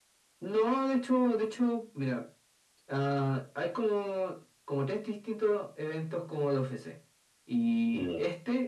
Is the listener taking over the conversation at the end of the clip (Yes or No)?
No